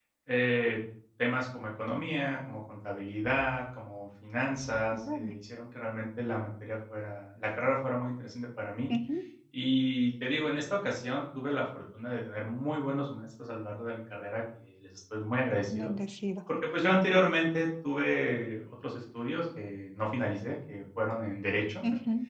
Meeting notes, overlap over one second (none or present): none